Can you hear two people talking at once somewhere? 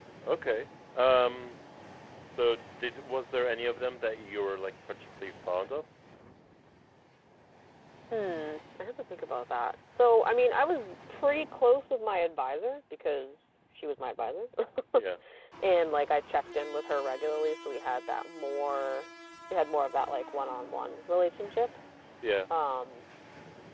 No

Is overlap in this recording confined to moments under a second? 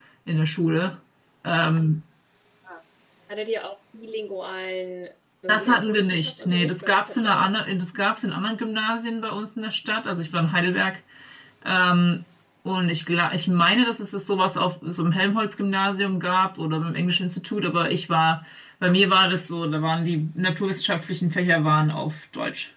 No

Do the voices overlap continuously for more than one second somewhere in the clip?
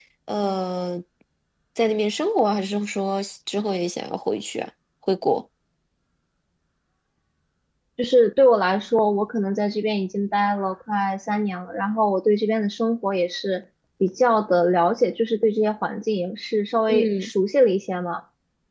No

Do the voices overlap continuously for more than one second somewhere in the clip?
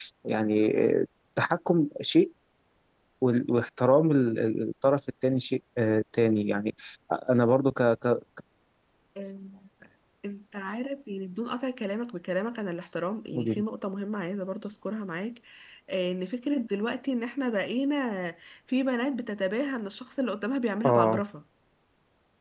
No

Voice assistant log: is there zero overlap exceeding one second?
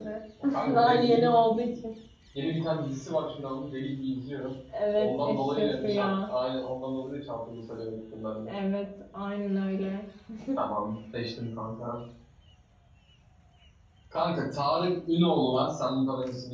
No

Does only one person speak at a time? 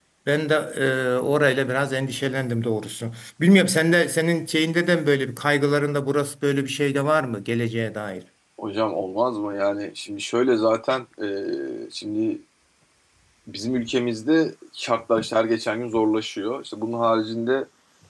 Yes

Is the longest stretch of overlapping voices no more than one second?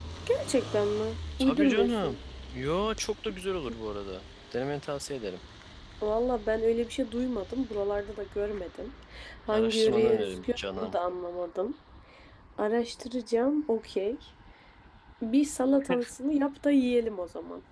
No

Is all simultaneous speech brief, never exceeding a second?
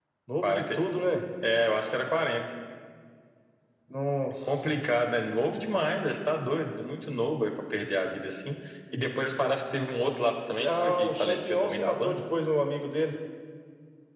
No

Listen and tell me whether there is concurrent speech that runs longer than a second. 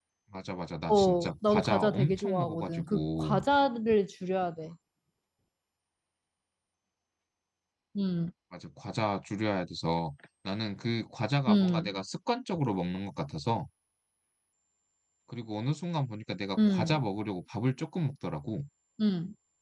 Yes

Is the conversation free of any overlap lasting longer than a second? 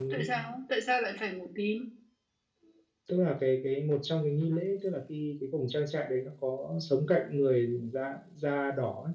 Yes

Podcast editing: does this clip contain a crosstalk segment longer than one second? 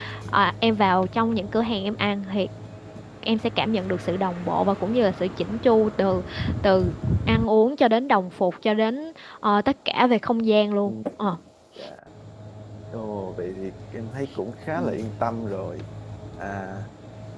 No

